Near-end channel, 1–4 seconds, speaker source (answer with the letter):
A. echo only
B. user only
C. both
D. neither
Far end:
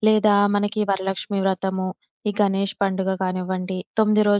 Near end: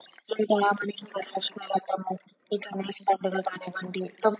A